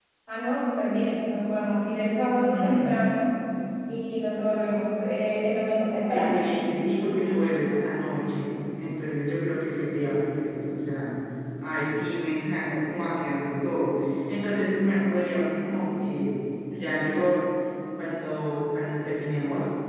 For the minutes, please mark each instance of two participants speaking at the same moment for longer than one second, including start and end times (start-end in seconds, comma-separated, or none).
none